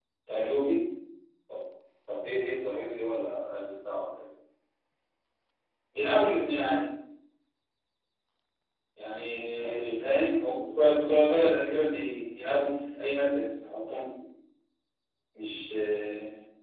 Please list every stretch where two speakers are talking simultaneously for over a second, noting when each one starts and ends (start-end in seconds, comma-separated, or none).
none